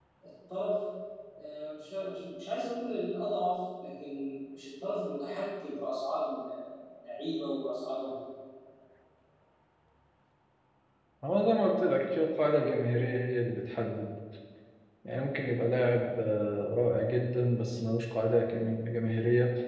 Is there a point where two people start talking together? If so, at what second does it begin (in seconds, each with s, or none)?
none